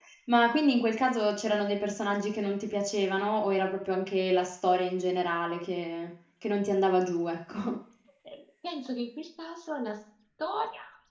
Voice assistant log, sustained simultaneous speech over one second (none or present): none